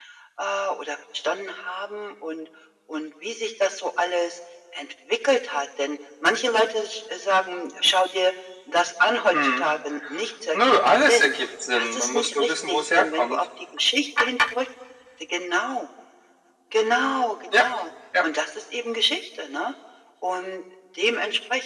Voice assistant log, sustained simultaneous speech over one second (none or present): present